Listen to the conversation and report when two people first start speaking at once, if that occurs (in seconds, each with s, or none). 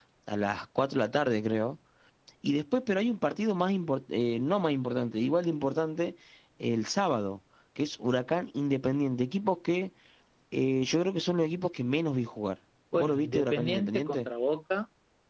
12.9 s